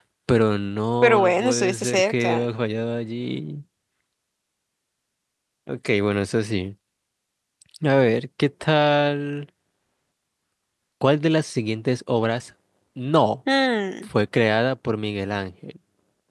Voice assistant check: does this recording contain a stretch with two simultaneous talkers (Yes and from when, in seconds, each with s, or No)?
Yes, from 1.0 s